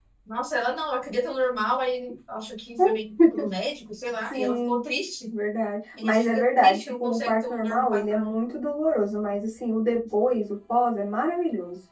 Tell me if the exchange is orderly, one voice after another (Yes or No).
No